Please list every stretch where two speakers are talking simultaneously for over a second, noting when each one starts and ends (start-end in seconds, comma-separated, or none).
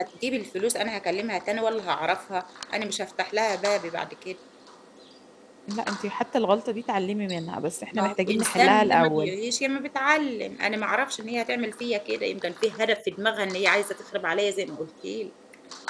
7.9-9.3